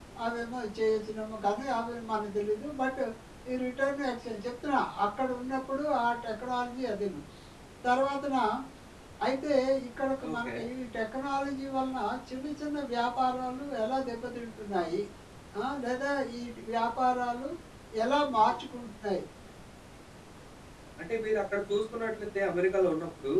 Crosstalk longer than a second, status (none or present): none